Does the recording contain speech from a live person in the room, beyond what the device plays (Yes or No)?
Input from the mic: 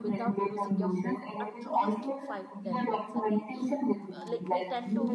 Yes